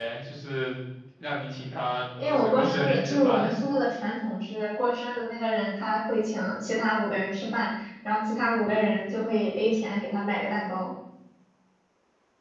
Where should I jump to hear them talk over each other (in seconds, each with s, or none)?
2.2 s